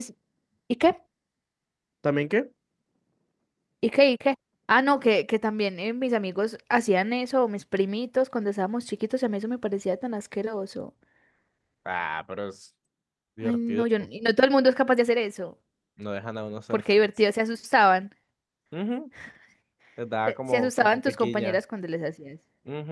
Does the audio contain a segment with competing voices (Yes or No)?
Yes